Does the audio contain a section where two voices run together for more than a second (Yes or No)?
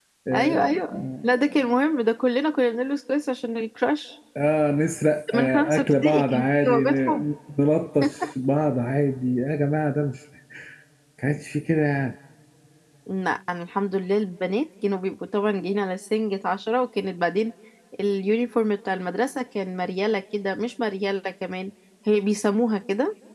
Yes